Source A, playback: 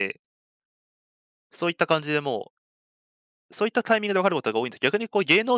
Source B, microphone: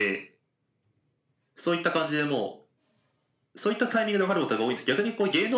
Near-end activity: none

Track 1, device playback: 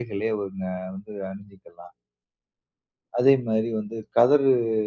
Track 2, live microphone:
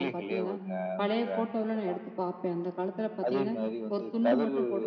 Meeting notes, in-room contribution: present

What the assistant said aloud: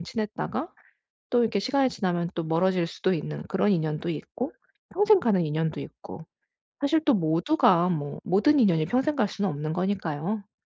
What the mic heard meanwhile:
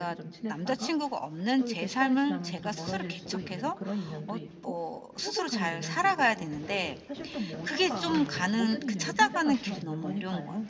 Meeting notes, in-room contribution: present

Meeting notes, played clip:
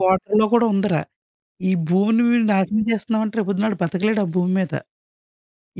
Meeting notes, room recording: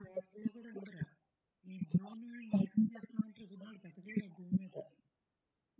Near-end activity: none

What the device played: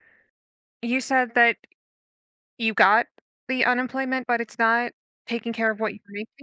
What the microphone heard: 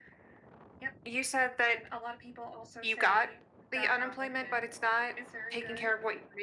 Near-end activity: present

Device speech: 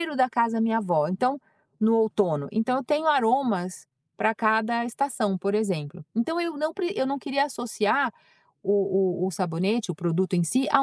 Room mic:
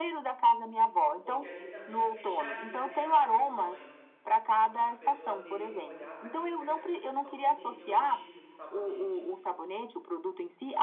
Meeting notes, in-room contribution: present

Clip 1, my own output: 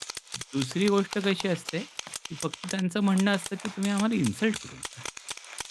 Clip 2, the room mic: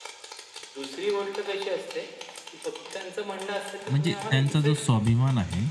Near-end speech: present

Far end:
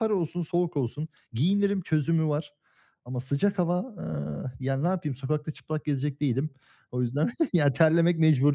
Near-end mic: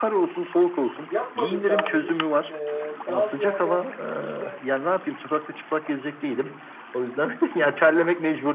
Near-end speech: present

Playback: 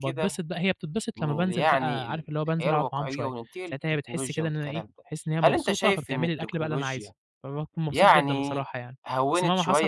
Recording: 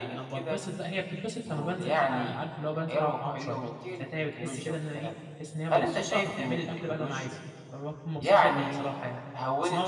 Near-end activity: none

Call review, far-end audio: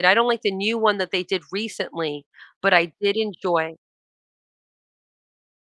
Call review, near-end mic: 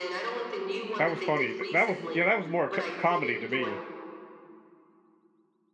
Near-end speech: present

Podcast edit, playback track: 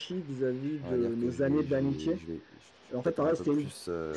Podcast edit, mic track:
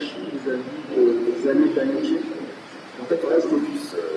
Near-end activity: none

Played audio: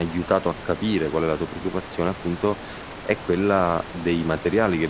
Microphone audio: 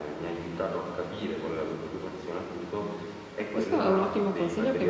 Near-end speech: present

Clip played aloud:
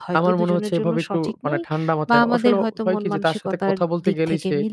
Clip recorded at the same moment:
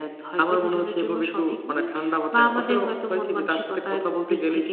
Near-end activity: none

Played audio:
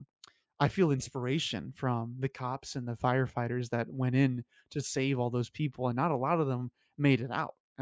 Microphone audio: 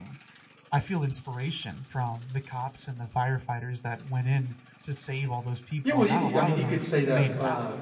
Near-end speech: present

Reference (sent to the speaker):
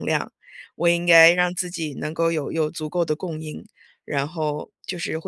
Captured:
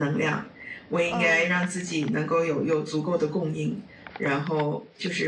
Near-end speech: present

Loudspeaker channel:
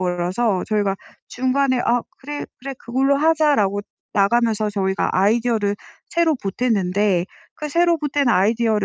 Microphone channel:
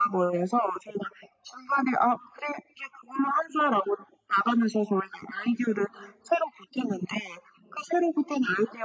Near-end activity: none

